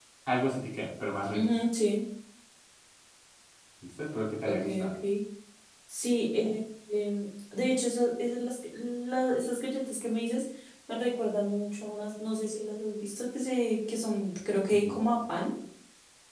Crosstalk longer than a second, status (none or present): none